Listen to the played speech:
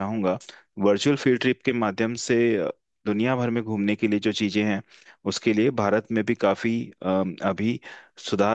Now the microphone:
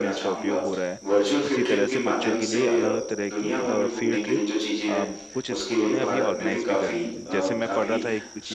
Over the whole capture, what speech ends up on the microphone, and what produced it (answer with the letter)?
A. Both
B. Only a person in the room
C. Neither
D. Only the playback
A